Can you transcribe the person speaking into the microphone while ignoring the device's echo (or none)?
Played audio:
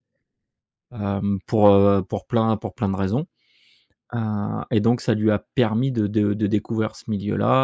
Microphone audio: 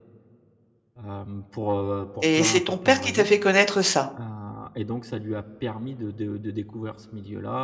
Et c'est ton père qui t'a fait connaître ça?